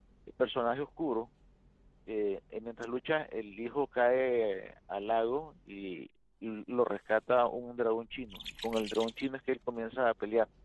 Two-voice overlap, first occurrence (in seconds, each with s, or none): none